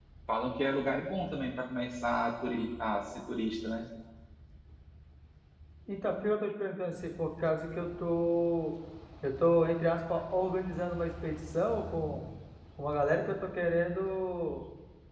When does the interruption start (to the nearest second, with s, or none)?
none